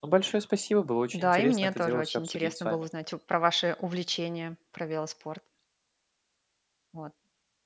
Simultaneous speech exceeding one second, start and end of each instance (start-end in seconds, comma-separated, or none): 1.1-2.8